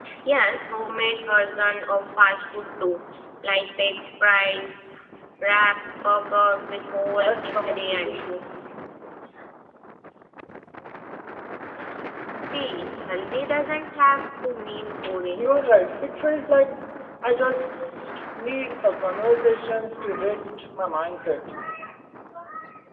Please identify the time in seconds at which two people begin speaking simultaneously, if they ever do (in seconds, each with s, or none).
7.2 s